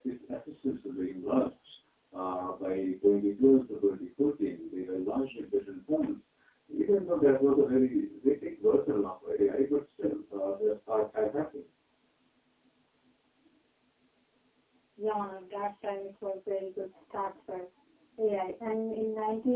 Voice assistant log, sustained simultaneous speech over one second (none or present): none